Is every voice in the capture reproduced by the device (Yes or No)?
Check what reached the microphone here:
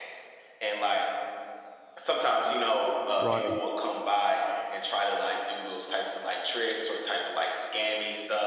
No